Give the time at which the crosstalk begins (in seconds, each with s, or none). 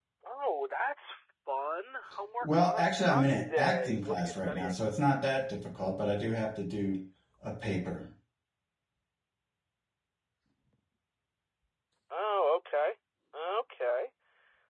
2.4 s